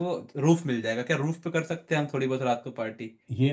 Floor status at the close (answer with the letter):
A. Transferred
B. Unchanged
A